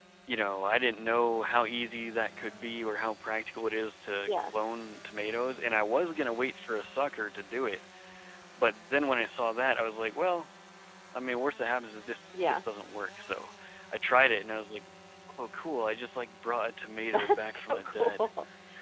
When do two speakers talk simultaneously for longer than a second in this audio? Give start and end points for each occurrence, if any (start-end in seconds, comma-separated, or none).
17.1-18.3